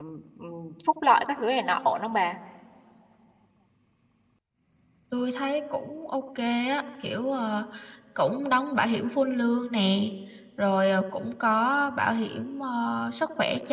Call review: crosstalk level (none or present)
none